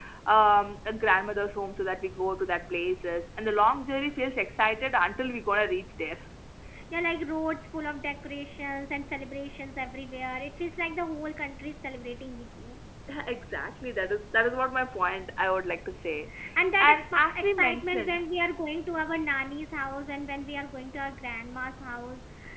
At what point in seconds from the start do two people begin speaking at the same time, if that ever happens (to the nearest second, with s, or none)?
17 s